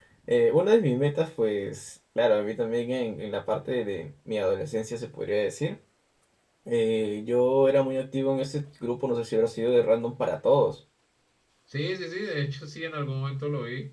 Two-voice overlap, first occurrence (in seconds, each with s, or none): none